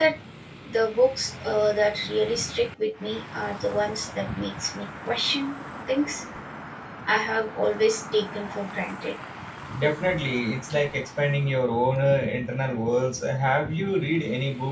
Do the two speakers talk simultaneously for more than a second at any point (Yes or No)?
No